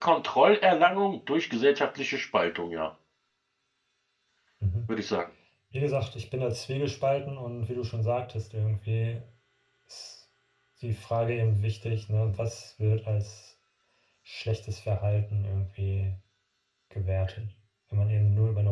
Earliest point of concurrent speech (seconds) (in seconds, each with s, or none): none